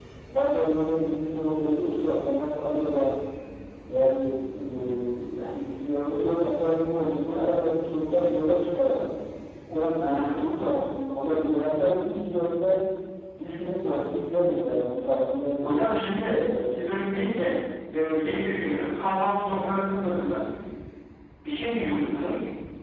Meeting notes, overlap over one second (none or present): none